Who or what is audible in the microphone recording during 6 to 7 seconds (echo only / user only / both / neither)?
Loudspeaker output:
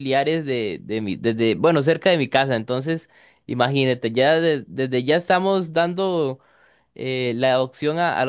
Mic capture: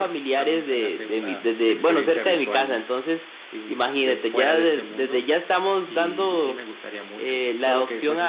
both